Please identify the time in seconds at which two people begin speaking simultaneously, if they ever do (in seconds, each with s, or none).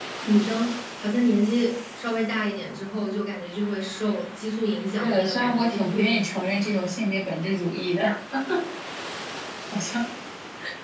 5.0 s